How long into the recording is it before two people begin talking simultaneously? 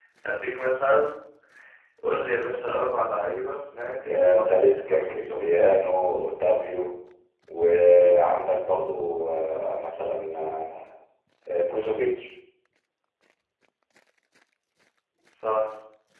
4 s

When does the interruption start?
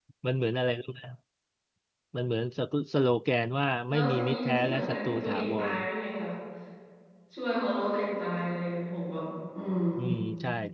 4 s

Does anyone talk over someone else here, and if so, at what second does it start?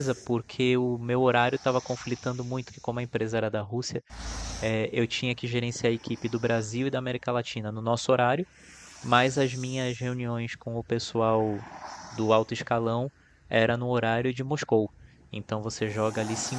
none

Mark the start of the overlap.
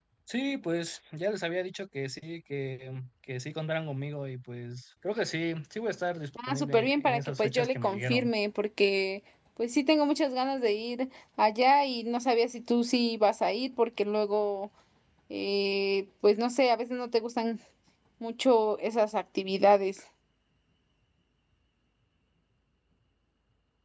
6 s

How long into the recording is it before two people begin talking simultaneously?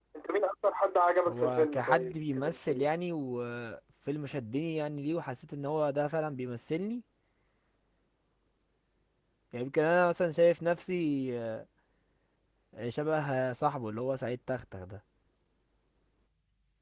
1 s

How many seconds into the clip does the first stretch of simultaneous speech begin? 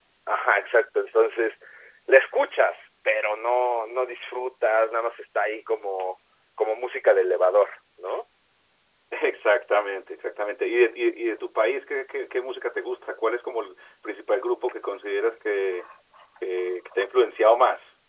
none

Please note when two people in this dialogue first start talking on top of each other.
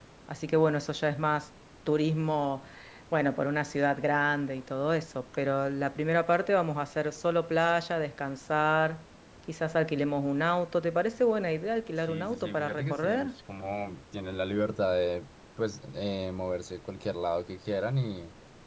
12 s

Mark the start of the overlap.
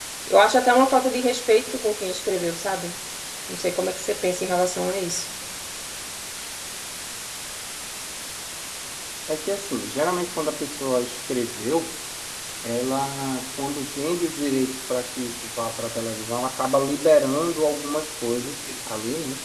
none

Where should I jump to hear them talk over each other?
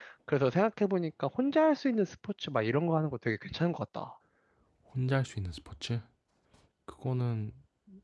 none

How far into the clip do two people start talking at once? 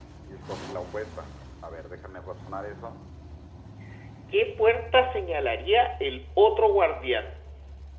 none

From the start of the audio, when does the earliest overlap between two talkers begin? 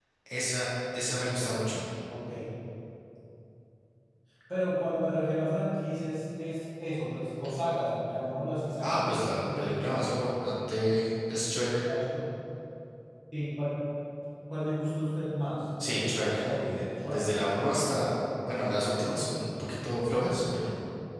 9 s

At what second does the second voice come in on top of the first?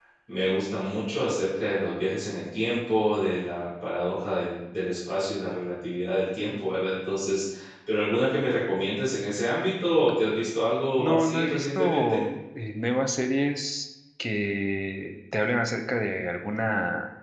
11 s

